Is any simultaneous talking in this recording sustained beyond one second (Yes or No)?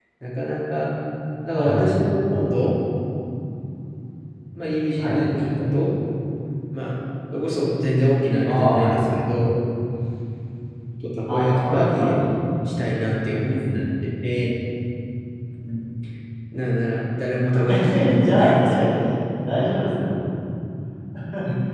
Yes